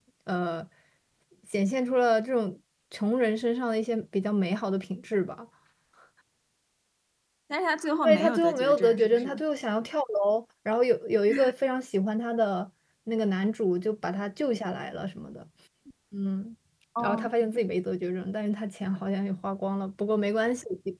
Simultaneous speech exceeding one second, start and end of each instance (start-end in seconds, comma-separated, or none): 8.0-9.4